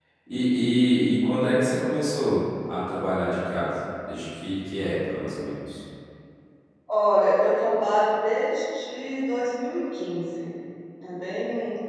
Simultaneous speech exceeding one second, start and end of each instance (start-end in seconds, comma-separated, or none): none